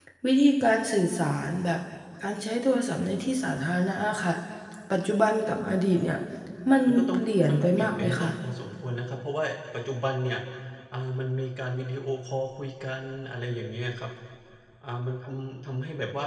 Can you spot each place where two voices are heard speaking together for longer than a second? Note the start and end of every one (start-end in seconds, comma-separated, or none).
6.9-8.3